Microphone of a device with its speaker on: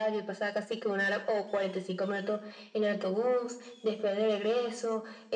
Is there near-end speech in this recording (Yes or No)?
No